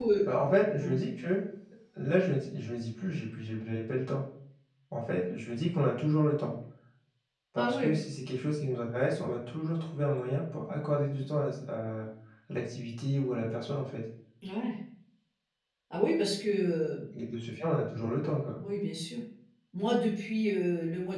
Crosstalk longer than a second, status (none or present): none